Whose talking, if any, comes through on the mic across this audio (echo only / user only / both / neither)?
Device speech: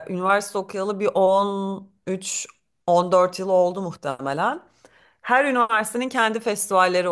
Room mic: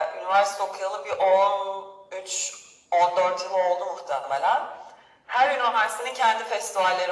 echo only